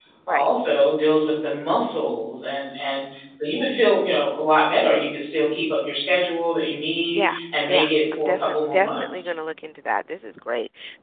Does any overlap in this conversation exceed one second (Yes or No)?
Yes